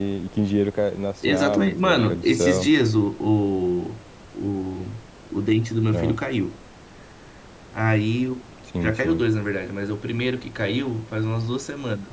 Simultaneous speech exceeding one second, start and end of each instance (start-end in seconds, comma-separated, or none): 1.2-2.7